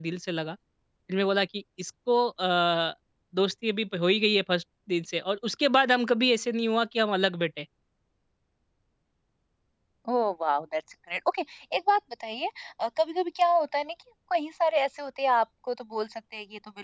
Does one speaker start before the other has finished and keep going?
No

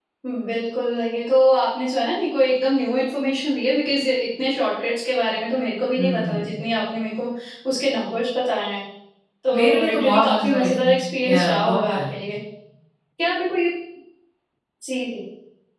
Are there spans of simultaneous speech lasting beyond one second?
Yes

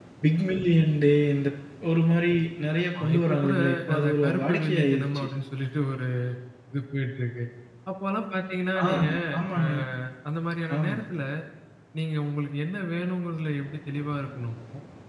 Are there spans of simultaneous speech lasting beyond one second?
Yes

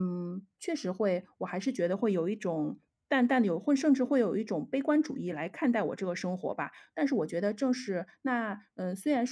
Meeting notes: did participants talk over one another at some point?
No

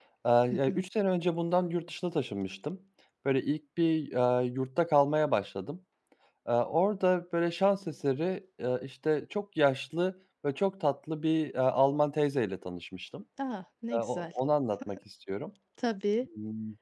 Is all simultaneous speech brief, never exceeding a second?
Yes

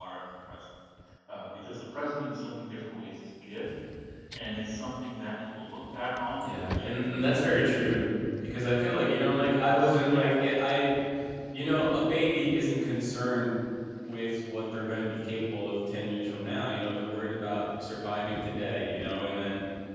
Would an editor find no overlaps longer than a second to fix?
No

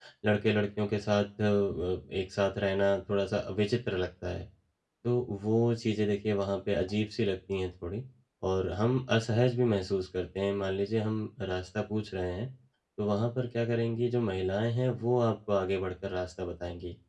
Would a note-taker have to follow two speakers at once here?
No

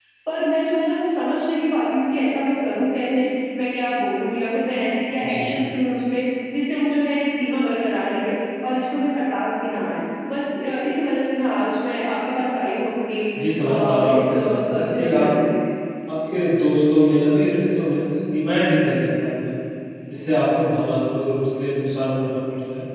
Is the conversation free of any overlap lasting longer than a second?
No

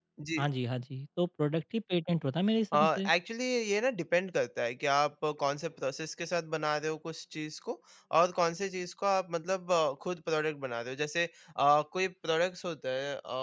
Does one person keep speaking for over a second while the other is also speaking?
No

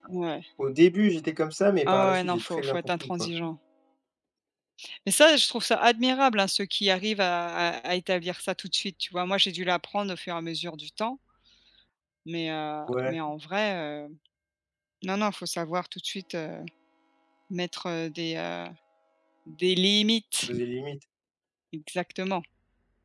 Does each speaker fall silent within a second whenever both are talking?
No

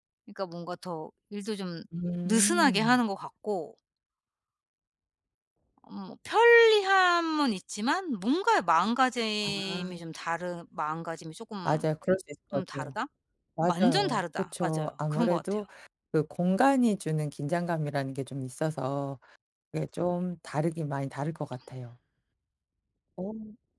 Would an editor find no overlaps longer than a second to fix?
No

